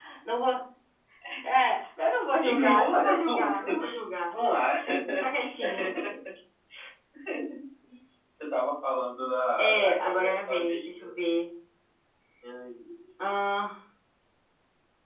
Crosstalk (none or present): present